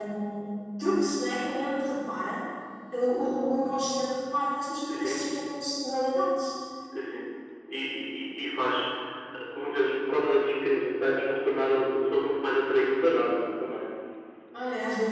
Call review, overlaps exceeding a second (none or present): none